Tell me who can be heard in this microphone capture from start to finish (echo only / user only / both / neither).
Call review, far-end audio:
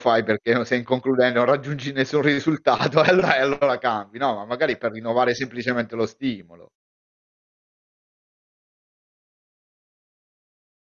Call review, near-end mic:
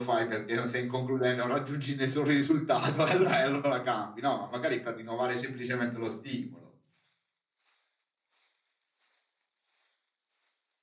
echo only